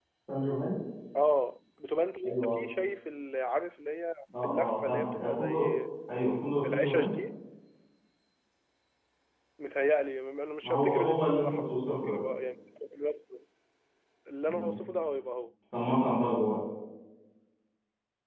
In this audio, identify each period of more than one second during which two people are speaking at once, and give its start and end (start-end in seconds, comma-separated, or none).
4.4-5.7, 10.6-12.2